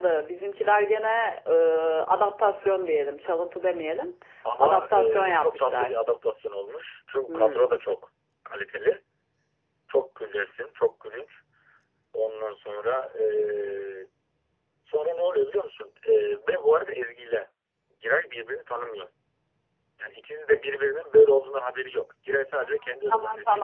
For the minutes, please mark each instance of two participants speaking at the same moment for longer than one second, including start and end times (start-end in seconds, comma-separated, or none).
4.6-5.9